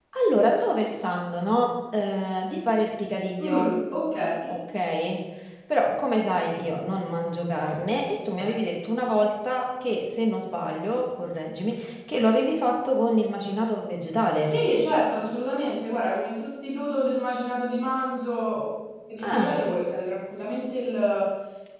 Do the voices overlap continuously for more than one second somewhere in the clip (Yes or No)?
No